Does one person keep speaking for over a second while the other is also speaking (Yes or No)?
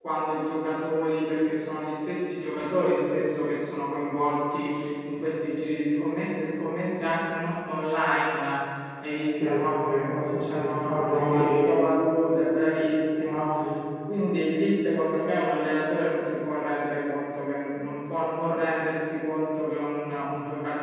Yes